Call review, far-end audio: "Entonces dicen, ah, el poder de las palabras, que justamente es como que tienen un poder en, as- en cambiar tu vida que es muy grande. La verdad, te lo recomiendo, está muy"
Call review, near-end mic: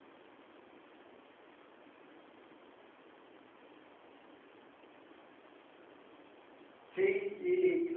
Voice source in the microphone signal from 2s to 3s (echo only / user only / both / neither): neither